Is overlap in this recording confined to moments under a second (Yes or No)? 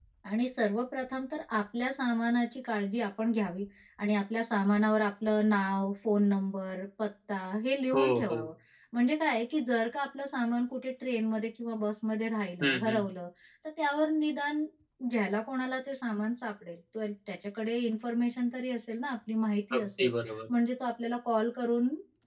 Yes